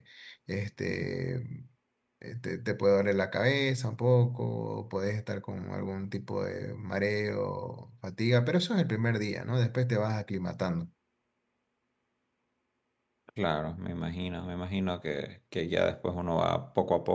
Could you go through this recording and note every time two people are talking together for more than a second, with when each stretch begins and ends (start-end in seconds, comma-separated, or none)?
none